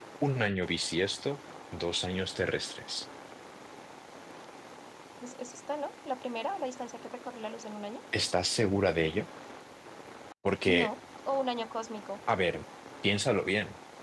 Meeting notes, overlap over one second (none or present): none